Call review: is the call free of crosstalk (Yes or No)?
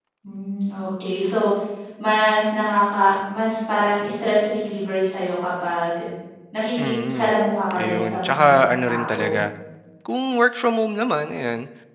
No